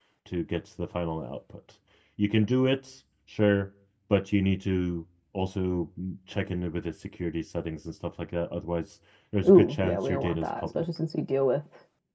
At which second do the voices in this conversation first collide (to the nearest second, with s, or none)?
9 s